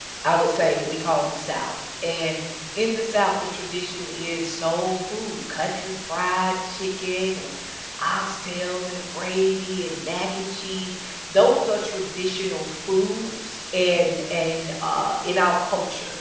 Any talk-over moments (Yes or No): No